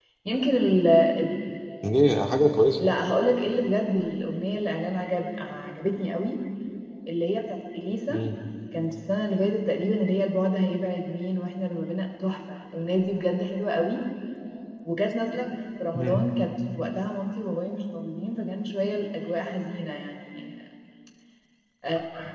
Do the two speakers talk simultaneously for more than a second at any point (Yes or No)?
No